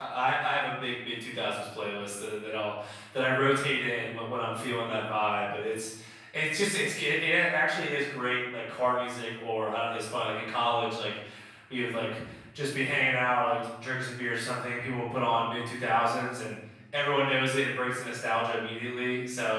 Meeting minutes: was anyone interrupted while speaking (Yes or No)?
No